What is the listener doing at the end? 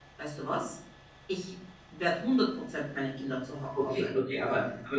taking over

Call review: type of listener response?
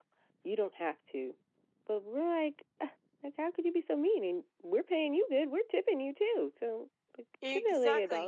taking over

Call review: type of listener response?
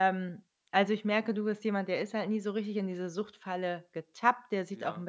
listening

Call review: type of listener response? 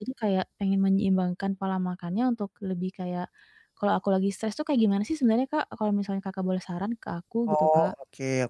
taking over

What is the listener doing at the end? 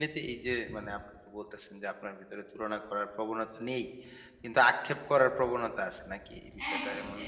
taking over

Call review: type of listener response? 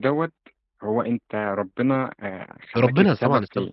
taking over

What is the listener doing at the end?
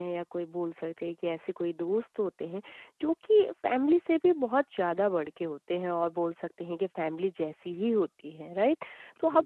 listening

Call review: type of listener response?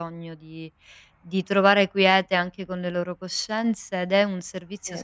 listening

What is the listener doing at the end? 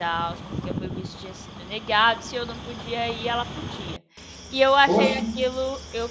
listening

